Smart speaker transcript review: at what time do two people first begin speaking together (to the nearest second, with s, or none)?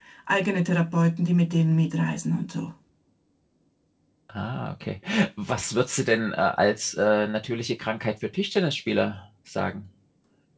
none